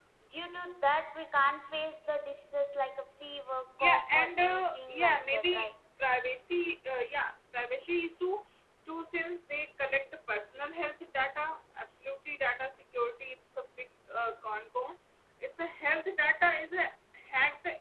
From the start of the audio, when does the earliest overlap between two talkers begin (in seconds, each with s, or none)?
3.8 s